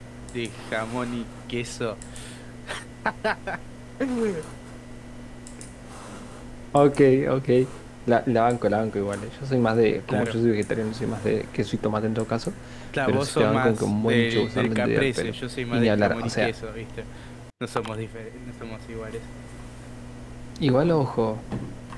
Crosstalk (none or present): present